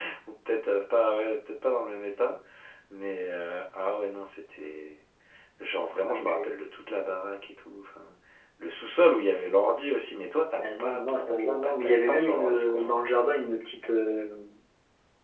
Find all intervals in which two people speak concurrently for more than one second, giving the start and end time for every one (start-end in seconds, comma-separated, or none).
10.6-12.9